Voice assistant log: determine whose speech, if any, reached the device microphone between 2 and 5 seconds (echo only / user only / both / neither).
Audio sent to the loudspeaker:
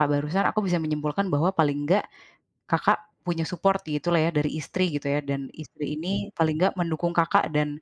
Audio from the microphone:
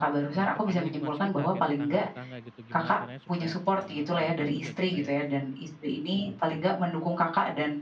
both